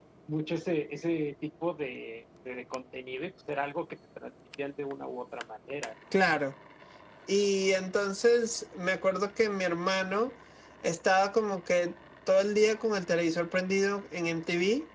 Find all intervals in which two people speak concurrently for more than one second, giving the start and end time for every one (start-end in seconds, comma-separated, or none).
none